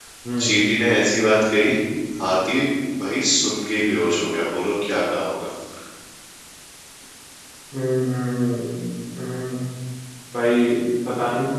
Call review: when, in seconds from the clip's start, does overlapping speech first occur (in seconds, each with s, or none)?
none